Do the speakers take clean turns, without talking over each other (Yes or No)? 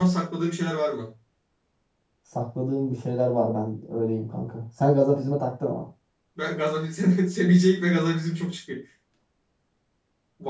Yes